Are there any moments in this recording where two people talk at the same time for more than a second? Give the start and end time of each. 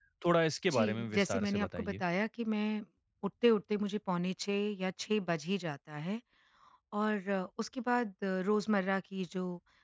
0.7-2.0

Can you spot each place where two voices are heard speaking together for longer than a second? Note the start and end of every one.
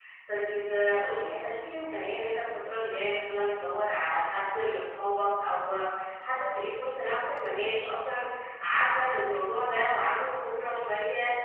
none

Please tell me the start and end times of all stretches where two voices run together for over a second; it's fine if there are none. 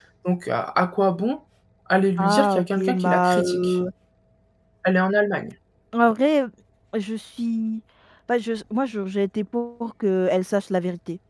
2.2-3.8

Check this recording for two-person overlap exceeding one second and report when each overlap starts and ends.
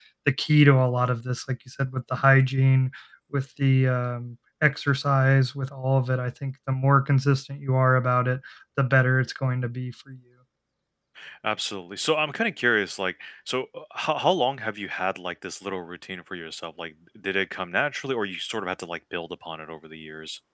none

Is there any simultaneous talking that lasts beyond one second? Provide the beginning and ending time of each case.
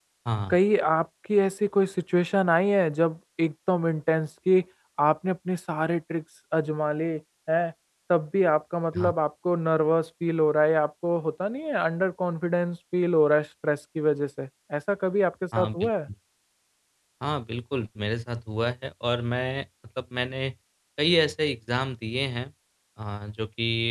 none

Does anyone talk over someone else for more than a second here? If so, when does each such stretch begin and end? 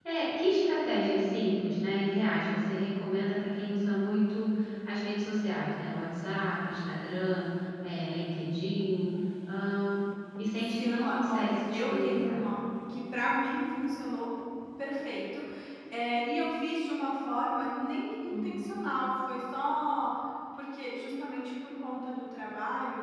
10.6-12.4

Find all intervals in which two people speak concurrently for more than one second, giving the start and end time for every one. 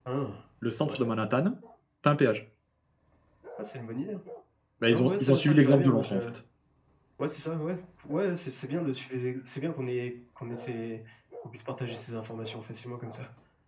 4.9-6.2

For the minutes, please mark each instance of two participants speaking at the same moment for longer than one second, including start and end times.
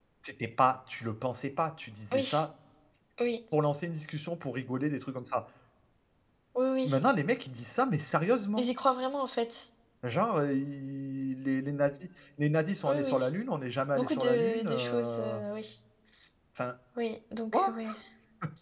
13.9-15.4

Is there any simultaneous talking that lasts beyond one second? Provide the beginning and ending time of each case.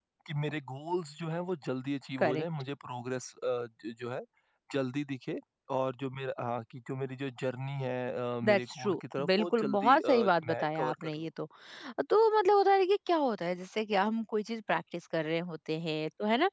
8.4-11.2

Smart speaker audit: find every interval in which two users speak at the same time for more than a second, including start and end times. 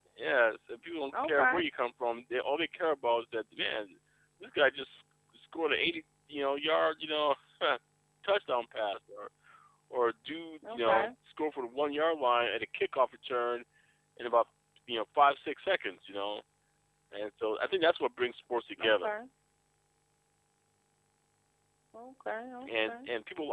none

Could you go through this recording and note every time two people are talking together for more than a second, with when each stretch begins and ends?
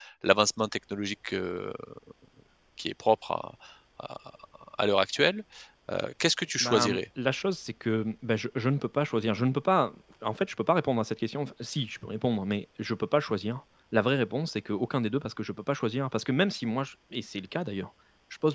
none

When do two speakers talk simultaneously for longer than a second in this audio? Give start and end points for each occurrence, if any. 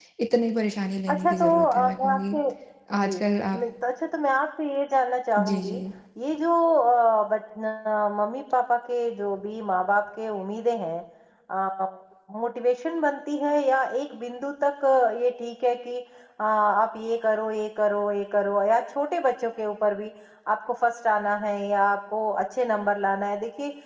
1.1-2.4

